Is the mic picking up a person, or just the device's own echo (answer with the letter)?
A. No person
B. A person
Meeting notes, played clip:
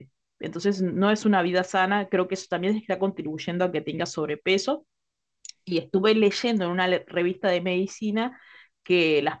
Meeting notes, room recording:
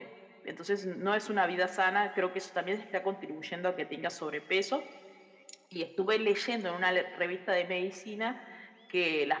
A